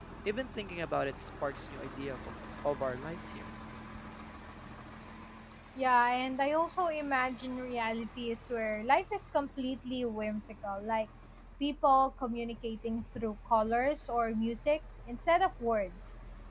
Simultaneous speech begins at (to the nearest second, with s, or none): none